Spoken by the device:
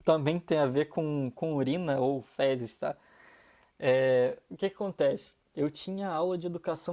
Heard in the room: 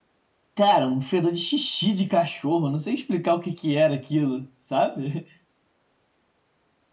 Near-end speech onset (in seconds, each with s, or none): 0.5 s